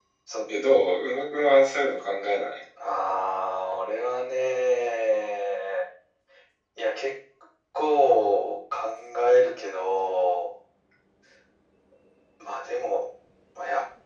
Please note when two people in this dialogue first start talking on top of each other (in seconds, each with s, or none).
none